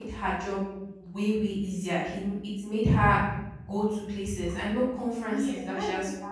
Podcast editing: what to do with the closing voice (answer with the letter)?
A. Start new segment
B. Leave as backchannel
A